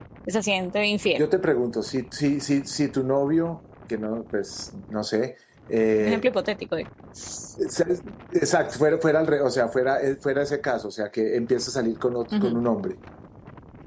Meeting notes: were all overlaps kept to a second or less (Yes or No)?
Yes